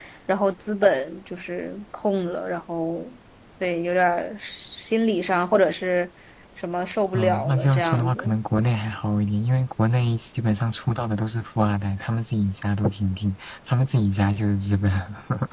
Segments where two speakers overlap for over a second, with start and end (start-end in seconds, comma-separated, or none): 7.1-8.4